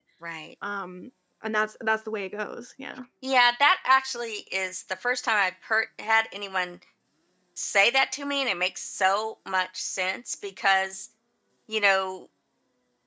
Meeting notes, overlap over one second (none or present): none